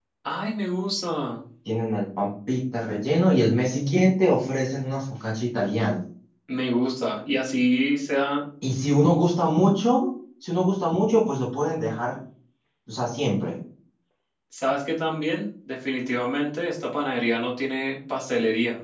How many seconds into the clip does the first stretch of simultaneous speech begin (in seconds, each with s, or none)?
none